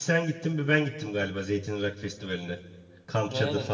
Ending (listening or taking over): taking over